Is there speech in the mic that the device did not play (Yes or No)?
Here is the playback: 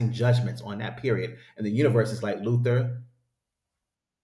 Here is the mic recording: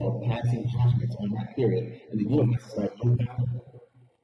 No